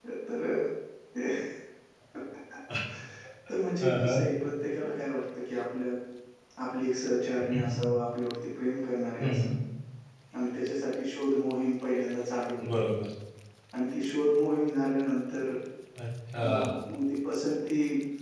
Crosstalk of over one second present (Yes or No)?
No